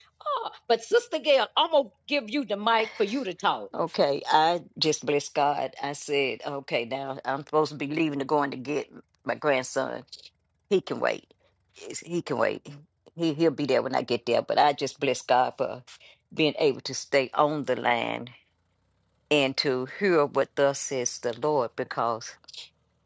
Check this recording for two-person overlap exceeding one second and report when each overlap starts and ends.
none

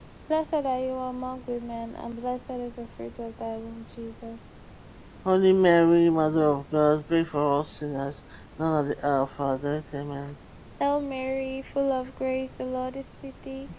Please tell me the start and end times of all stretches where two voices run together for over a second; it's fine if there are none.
none

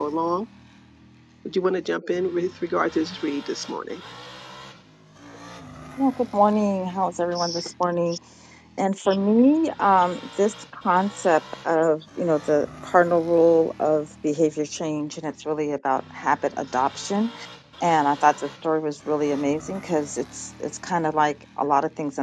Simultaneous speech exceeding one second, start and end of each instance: none

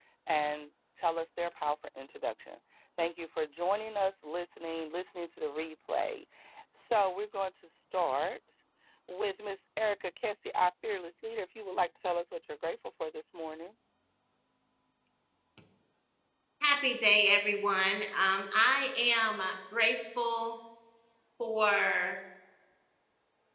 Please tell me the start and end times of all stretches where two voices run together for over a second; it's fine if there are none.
none

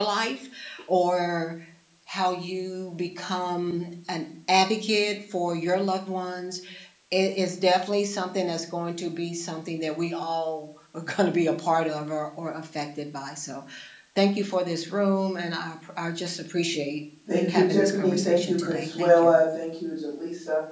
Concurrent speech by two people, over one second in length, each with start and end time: 17.3-19.4

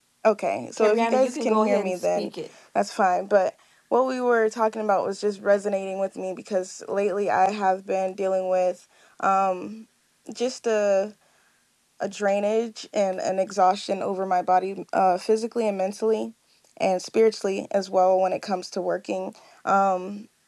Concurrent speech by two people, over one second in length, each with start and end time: 0.8-2.3

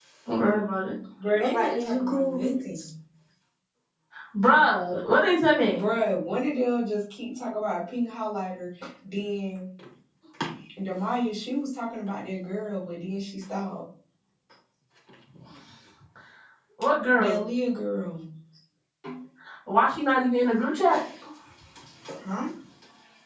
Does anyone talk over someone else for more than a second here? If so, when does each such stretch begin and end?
1.5-2.9

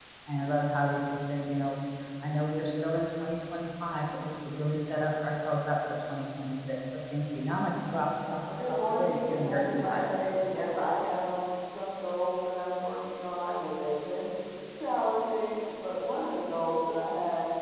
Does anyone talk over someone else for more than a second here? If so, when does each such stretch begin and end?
8.7-10.1

